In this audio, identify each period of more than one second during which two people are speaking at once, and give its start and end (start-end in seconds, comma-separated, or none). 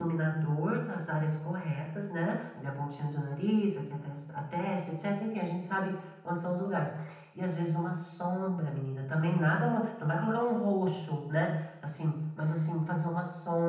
none